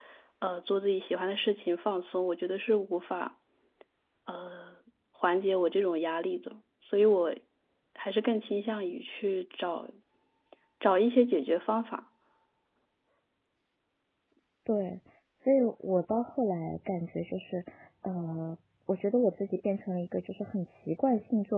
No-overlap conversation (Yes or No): Yes